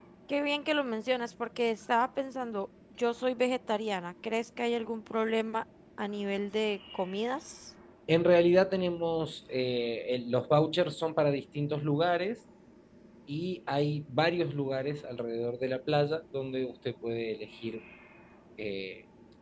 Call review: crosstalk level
none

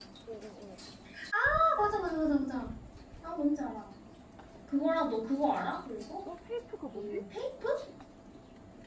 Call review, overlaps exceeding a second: none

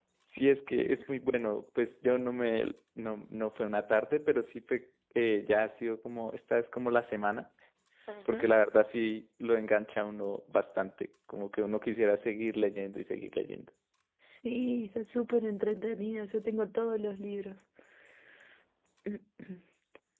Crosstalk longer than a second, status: none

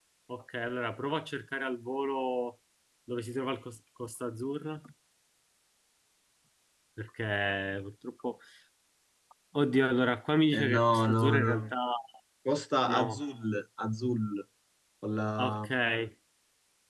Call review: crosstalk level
present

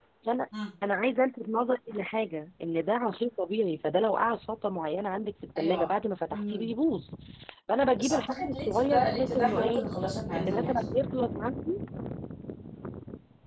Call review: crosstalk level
present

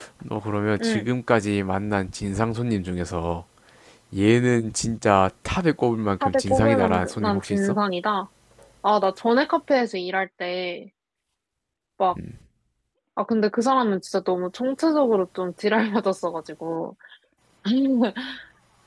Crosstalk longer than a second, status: present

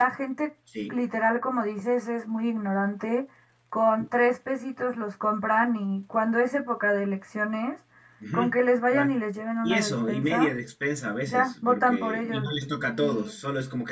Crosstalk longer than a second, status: present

